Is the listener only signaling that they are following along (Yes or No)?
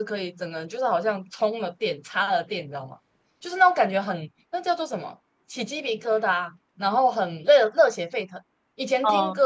Yes